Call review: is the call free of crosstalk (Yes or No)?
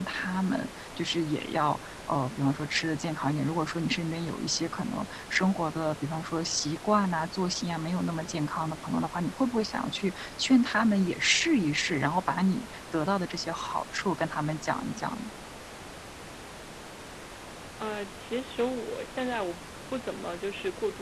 Yes